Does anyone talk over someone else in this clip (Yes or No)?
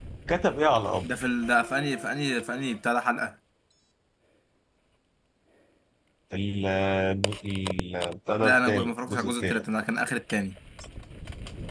Yes